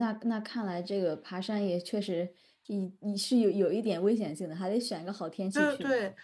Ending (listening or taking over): taking over